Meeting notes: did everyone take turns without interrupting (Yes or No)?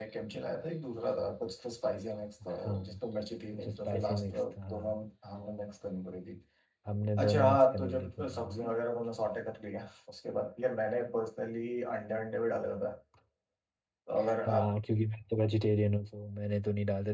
No